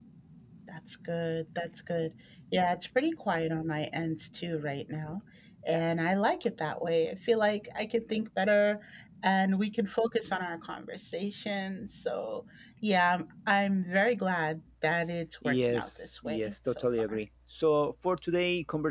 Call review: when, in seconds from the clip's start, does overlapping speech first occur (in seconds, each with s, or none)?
15.4 s